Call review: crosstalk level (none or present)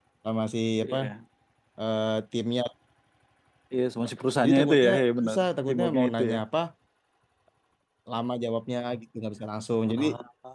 present